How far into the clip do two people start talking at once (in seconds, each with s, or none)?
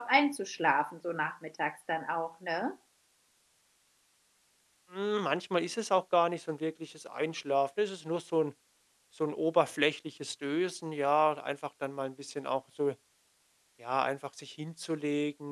none